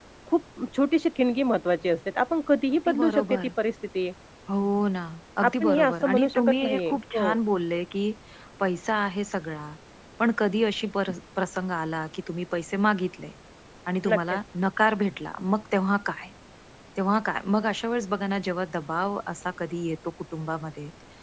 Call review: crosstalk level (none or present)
present